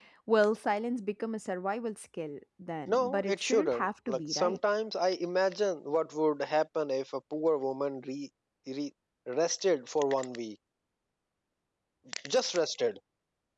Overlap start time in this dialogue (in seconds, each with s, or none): 2.9 s